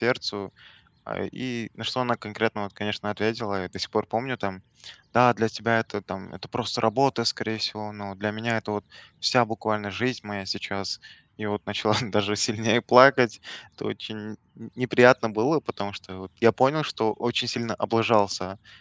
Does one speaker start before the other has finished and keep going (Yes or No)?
No